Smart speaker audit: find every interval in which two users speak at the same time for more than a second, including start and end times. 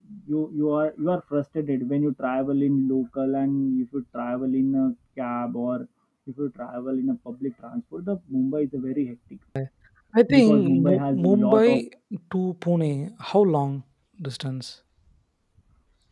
10.4-11.8

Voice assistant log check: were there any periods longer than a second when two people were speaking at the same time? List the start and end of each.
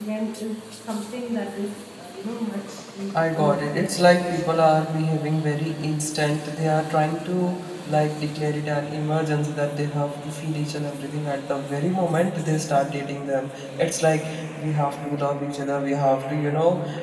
3.1-4.5

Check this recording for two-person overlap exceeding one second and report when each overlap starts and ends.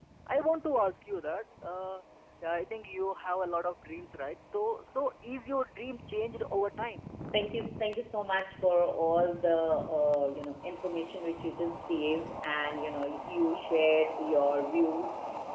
none

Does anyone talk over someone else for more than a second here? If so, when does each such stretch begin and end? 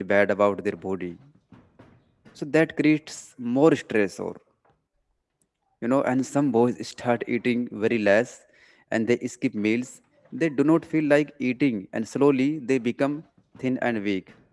none

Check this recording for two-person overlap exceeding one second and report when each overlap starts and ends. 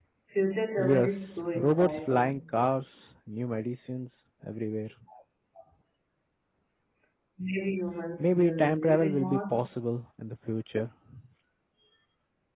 0.8-2.4, 8.2-9.8

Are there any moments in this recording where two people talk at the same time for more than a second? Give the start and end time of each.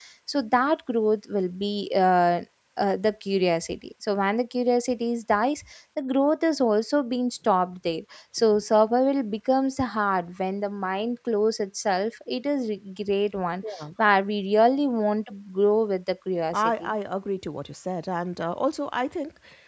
none

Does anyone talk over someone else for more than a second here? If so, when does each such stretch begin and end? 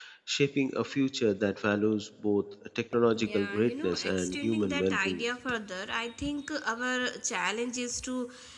3.2-5.2

